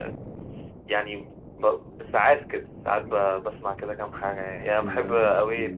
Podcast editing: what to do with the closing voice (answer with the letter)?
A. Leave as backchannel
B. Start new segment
A